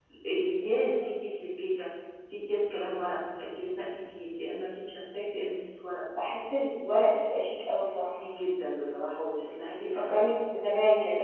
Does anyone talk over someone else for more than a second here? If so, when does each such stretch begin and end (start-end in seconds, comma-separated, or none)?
none